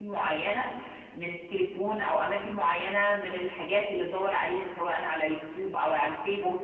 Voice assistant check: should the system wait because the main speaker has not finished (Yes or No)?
No